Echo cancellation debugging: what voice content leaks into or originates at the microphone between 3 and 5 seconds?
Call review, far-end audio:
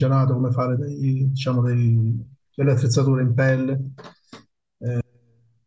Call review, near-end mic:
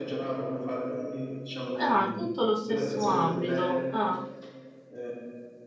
both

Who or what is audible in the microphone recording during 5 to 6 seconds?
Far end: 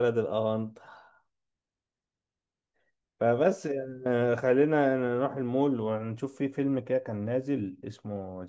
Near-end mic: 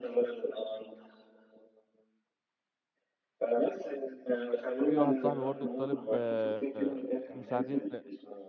both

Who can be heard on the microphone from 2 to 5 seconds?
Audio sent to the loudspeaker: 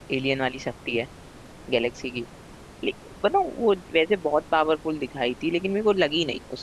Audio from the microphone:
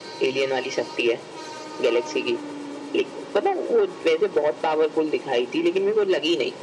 echo only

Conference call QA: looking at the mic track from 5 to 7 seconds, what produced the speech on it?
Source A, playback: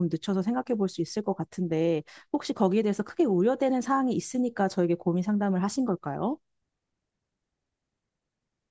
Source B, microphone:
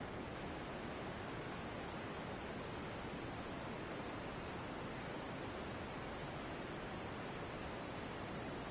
neither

